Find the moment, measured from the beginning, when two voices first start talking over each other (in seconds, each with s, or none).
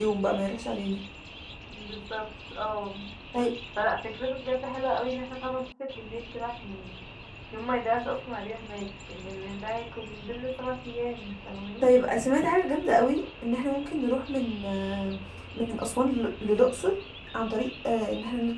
none